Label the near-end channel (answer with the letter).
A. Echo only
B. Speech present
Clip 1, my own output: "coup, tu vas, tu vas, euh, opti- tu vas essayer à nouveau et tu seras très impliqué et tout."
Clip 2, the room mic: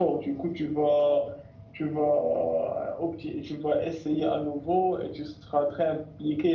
A